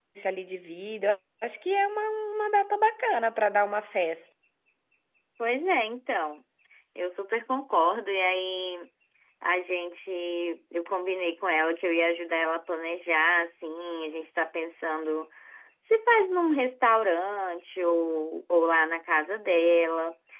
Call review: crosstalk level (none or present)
none